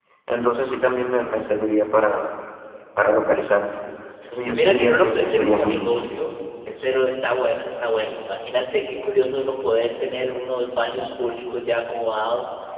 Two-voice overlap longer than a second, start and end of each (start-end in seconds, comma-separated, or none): 4.5-6.2